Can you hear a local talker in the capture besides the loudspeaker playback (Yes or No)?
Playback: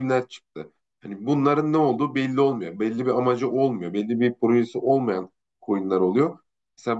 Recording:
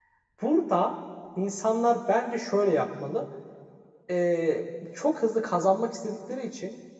Yes